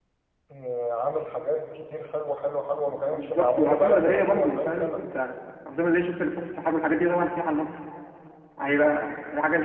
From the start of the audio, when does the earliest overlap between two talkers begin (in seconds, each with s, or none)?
3.1 s